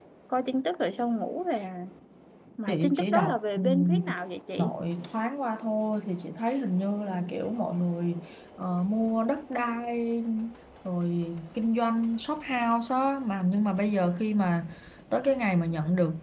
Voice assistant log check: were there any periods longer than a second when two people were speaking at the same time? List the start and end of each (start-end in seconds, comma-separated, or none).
2.7-4.0